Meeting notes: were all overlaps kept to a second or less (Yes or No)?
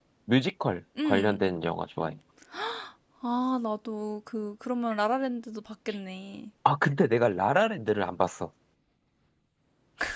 Yes